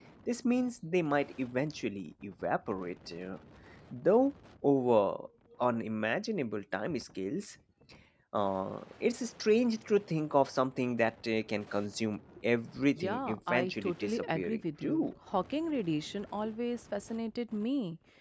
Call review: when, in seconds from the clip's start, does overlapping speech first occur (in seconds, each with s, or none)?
13.0 s